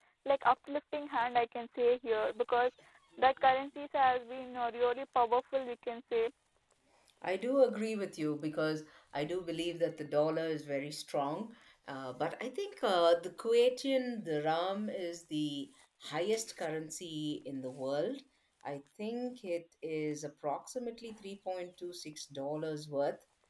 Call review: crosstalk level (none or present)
none